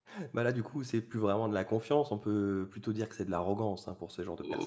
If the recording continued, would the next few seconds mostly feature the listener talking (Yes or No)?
Yes